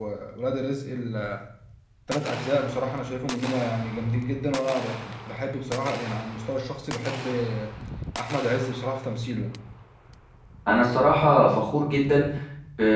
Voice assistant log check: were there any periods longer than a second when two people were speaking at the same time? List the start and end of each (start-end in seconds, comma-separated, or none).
none